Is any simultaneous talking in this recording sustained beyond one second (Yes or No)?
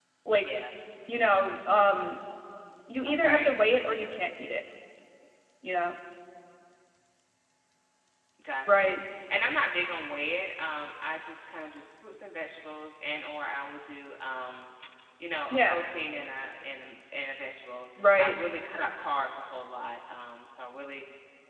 No